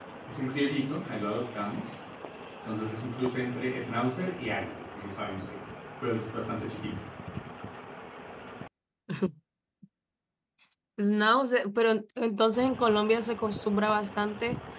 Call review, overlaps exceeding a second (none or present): none